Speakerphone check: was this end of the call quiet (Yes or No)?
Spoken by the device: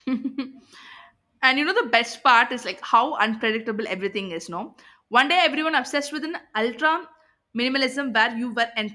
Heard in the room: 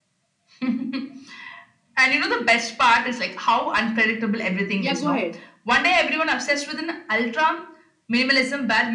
No